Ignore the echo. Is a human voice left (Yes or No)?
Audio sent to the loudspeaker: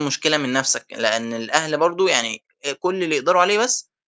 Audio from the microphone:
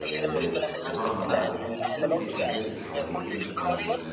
Yes